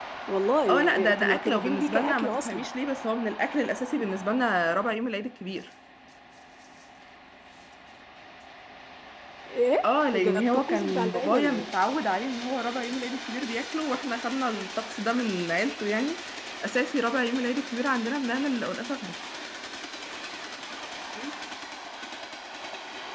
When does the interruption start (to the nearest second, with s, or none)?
1 s